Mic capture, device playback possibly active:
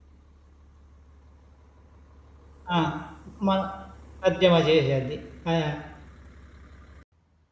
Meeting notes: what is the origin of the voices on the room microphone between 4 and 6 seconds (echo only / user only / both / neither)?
user only